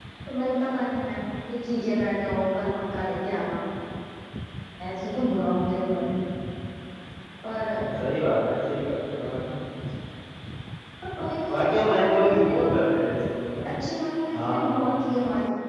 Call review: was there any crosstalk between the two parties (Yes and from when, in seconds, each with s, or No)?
Yes, from 11.2 s